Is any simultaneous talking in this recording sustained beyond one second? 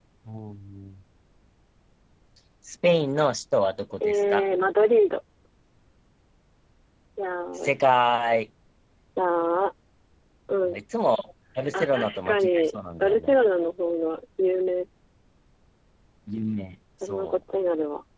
Yes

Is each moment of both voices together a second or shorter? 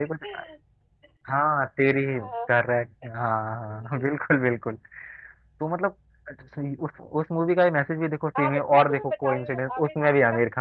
No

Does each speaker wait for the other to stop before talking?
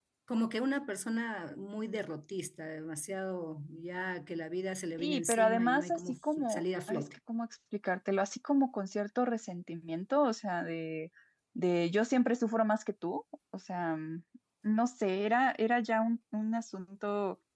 No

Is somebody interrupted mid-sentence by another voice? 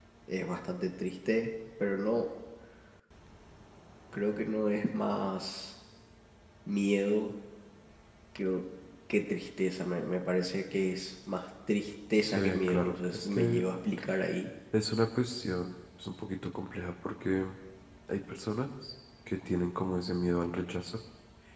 Yes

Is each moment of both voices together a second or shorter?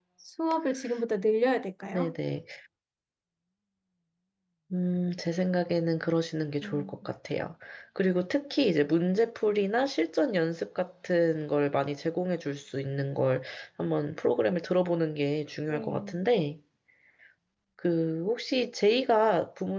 Yes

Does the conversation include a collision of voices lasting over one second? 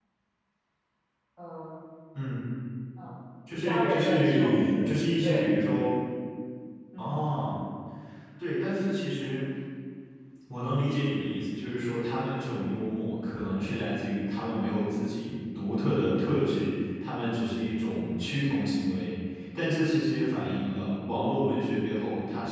Yes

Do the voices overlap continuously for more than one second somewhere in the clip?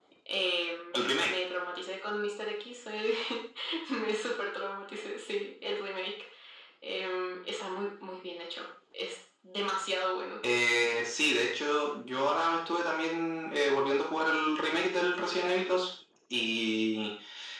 No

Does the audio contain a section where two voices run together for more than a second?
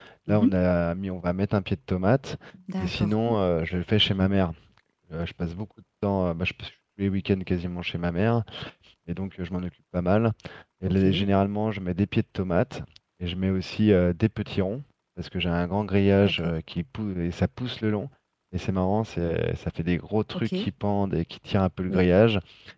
No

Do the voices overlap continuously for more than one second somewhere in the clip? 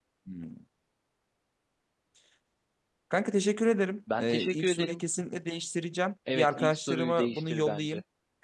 Yes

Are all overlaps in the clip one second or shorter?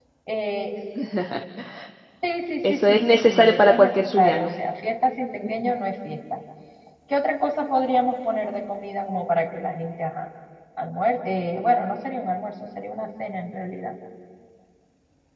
No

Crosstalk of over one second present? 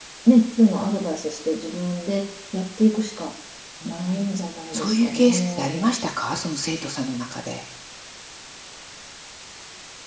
Yes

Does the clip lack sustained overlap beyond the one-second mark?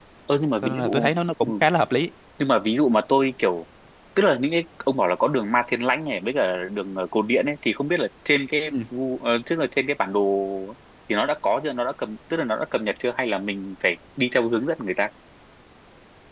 Yes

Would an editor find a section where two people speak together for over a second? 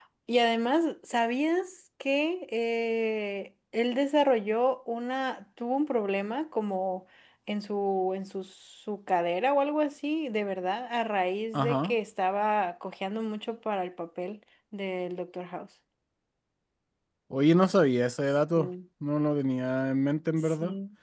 No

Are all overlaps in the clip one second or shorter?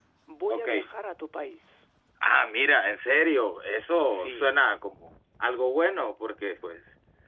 Yes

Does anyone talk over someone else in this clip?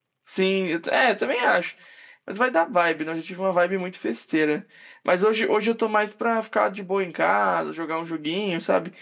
No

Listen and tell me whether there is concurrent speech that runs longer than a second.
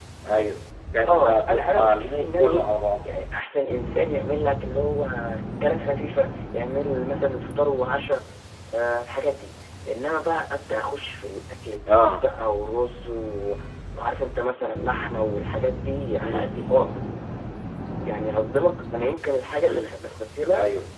Yes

